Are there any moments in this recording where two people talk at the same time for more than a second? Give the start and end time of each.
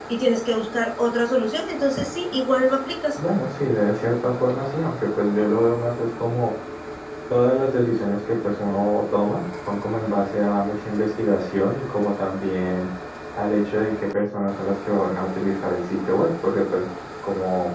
none

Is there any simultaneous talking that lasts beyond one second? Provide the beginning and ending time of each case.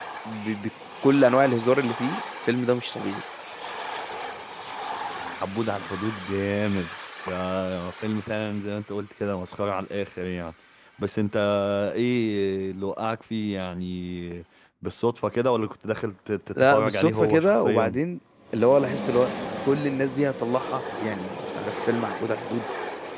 16.6-18.0

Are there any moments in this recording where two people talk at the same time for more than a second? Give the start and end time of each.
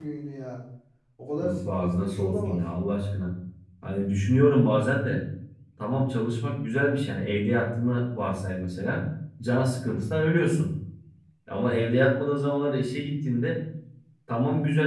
1.4-2.6

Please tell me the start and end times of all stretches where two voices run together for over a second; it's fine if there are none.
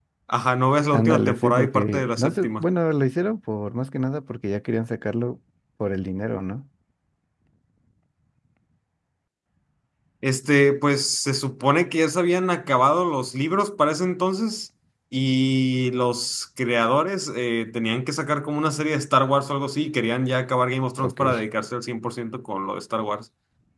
0.9-2.6

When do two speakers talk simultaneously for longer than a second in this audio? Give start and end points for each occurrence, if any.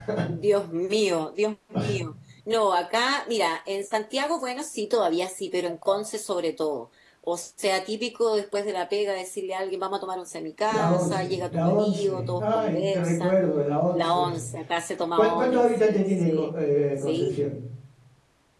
10.7-13.3, 15.2-16.5

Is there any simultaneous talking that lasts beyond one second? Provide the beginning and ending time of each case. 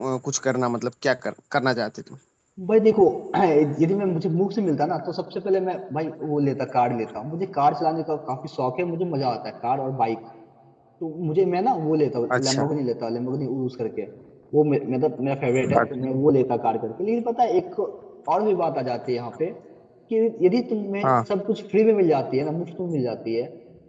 none

